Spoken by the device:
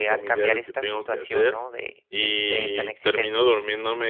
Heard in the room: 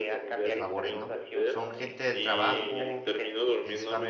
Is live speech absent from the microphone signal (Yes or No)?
No